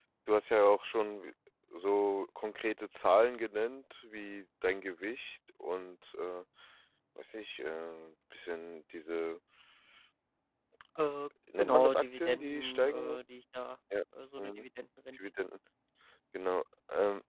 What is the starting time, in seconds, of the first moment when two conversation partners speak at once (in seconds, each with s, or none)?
11.6 s